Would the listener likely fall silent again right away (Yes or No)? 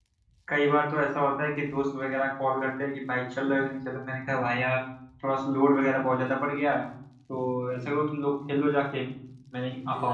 No